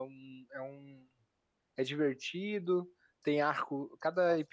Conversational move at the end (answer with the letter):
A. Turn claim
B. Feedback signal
B